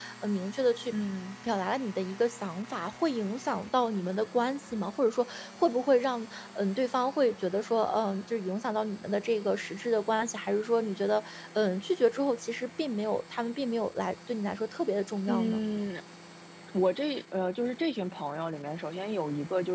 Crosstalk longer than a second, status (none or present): none